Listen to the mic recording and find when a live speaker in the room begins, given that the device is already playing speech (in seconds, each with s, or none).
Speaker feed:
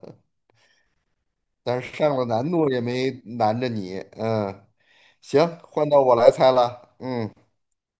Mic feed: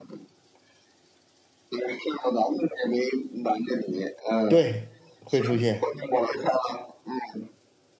4.5 s